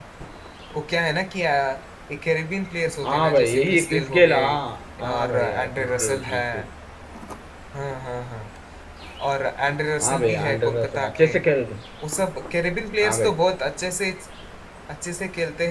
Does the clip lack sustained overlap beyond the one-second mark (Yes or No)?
No